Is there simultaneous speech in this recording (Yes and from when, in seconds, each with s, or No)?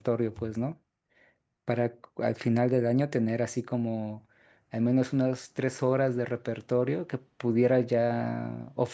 No